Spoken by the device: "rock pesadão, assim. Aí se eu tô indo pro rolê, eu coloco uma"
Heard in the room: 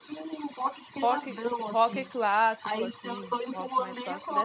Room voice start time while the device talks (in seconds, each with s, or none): 1.0 s